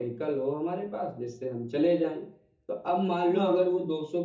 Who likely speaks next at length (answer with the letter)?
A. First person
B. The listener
A